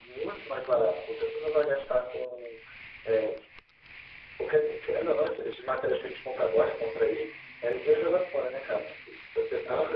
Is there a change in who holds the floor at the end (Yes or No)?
No